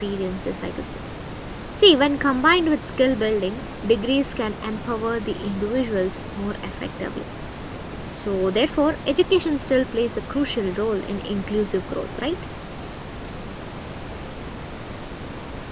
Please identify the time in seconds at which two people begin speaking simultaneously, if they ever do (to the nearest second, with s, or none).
none